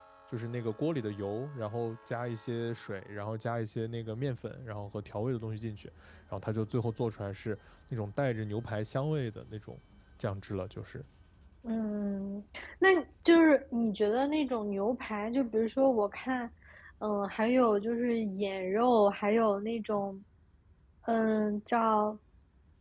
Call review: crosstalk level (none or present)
none